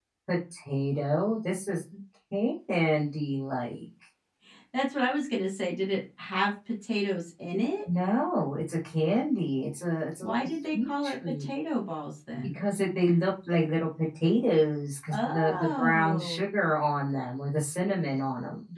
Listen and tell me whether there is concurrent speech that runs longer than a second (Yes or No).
Yes